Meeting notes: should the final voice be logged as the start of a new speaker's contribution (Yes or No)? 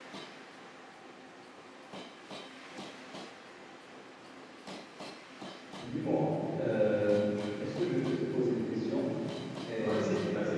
Yes